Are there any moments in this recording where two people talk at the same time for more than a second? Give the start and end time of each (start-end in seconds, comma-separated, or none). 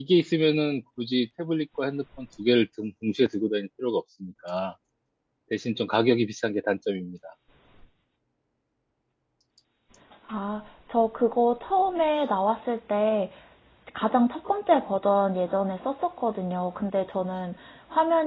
none